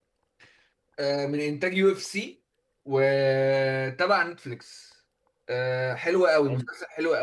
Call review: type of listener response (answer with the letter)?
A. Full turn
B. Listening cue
B